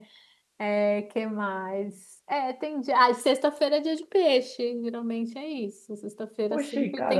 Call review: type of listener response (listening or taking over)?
taking over